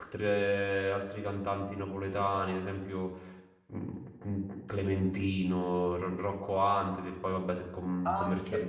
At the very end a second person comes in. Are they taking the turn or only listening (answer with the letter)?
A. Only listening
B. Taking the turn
B